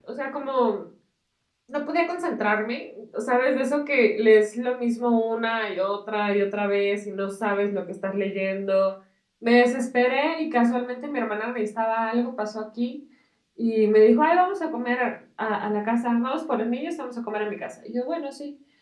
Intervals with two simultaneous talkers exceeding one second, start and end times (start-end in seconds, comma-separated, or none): none